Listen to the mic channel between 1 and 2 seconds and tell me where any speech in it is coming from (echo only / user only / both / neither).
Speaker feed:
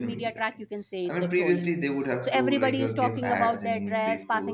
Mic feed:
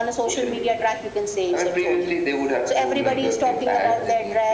echo only